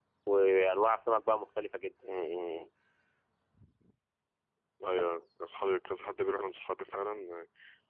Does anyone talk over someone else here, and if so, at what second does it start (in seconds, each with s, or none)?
none